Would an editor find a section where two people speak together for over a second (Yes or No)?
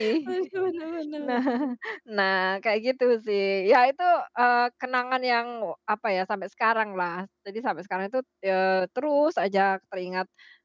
No